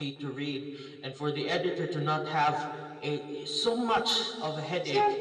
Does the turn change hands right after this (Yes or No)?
Yes